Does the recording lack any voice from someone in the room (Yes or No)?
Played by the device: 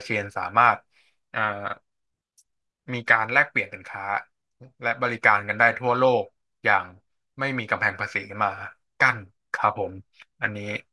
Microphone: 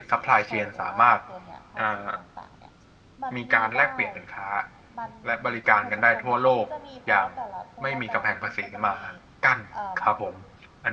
No